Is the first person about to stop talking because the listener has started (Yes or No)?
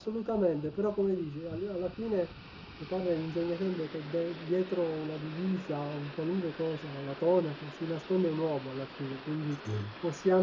No